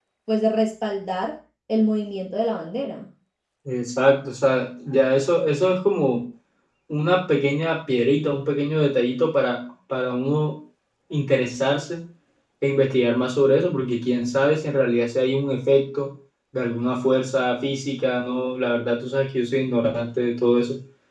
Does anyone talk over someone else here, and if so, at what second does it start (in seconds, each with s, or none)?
none